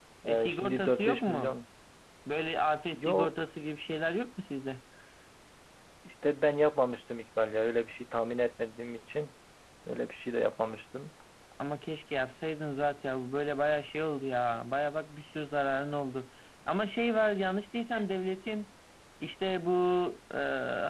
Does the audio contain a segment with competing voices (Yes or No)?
Yes